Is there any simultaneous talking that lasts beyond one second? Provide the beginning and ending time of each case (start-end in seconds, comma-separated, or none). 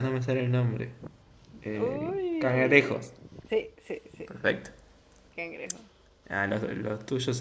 1.7-3.0